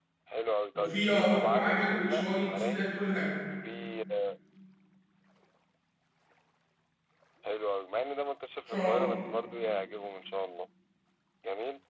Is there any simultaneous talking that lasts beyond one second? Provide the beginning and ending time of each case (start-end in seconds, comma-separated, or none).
0.8-2.9